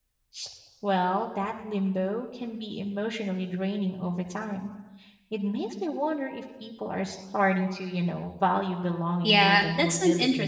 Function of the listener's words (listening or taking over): taking over